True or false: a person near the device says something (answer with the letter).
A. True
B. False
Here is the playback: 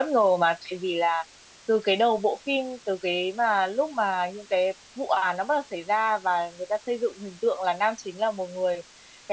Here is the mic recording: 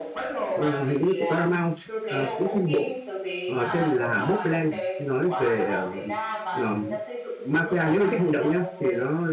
A